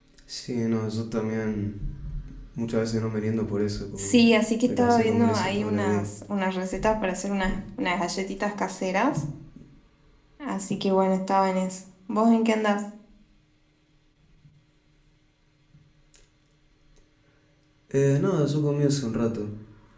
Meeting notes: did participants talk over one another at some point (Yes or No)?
Yes